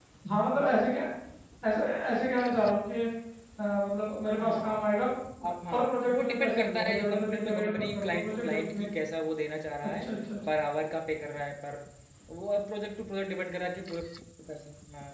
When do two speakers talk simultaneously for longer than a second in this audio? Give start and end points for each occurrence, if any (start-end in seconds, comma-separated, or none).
5.7-8.9